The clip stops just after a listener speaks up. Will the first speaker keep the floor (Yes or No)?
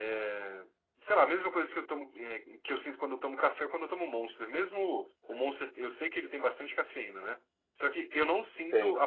Yes